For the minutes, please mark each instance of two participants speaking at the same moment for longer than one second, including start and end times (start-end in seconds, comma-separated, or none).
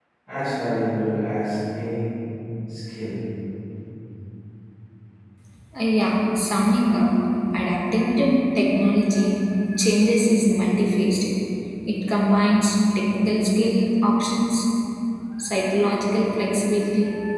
none